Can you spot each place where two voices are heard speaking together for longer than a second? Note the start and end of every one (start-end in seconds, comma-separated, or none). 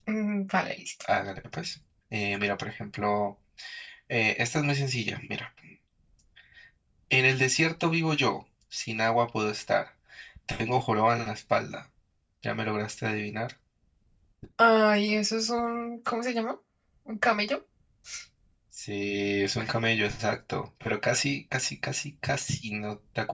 none